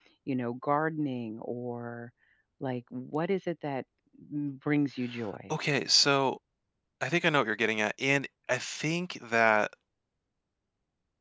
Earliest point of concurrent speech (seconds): none

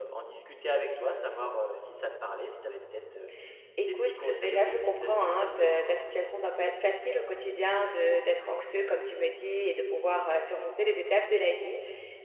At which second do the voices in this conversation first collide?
3.9 s

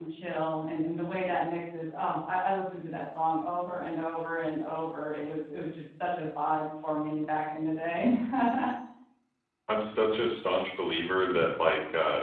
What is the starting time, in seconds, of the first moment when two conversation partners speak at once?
none

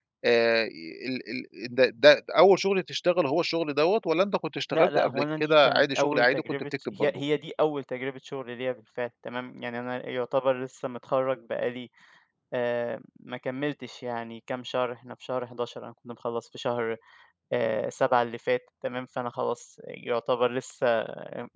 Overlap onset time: 4.7 s

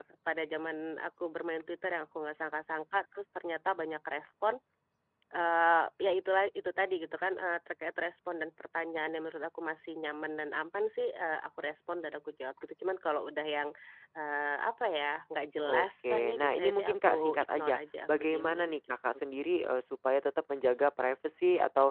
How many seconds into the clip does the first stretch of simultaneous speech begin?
15.6 s

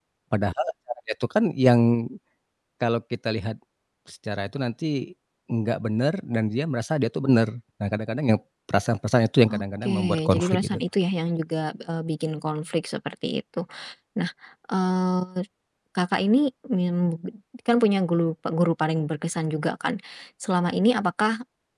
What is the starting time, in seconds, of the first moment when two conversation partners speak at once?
9.5 s

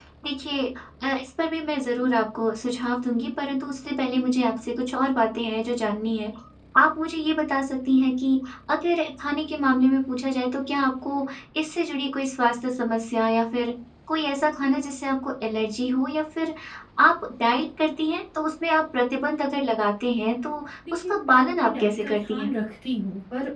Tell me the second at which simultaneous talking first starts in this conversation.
20.8 s

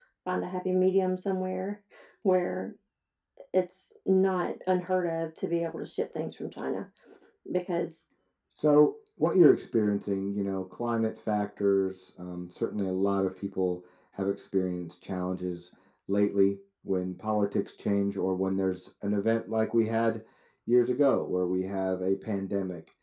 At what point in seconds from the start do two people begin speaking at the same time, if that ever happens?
none

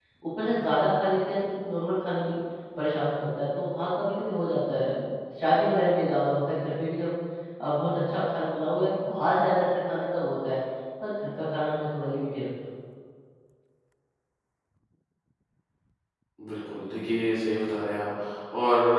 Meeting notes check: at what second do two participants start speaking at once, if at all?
none

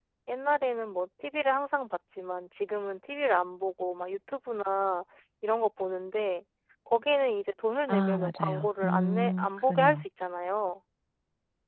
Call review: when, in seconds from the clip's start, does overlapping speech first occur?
7.9 s

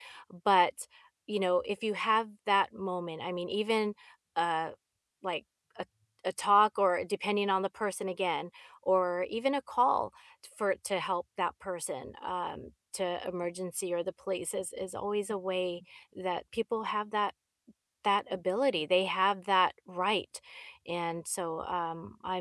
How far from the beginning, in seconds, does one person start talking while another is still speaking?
none

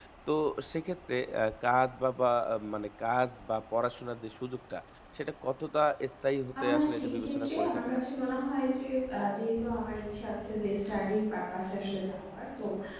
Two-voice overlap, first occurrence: 6.6 s

